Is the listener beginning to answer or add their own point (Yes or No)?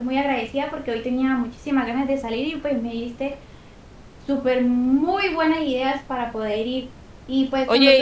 No